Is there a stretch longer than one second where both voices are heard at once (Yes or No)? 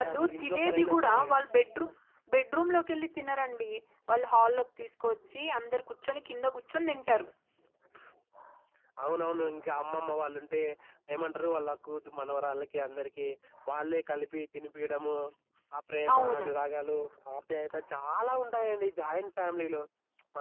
Yes